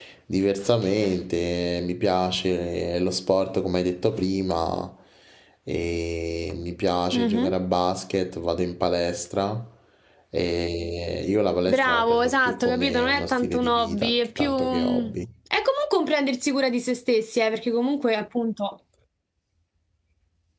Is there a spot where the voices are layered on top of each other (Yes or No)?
Yes